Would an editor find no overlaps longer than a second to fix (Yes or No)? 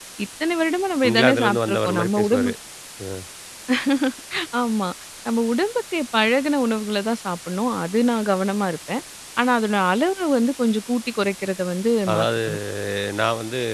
No